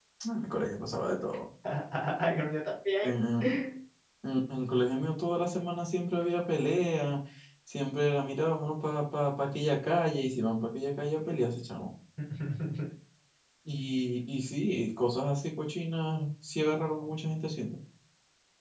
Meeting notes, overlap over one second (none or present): none